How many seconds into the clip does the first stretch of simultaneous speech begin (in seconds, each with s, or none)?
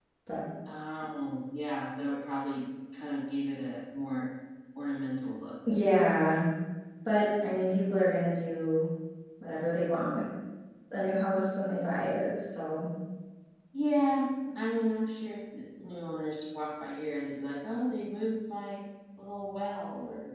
none